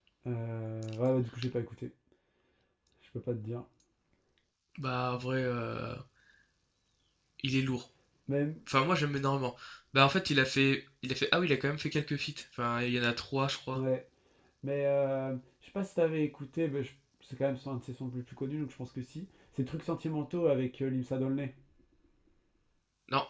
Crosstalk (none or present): none